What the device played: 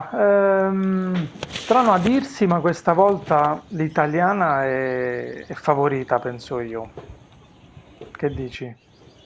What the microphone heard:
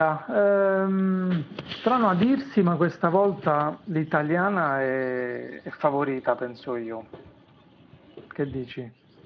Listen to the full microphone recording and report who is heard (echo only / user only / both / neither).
echo only